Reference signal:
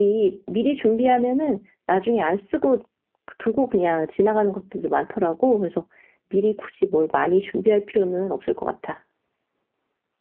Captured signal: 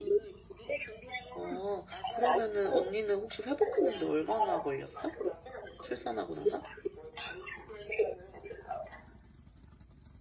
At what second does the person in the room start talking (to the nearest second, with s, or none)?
1 s